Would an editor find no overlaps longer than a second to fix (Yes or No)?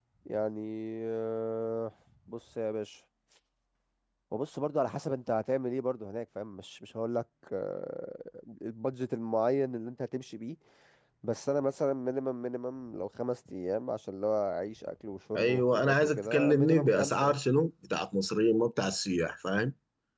No